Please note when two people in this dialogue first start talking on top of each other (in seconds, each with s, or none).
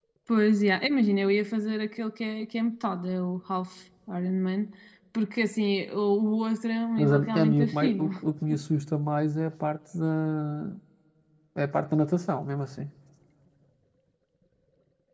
7.0 s